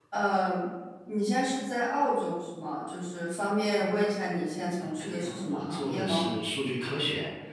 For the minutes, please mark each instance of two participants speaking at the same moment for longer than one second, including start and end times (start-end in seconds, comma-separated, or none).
4.8-6.3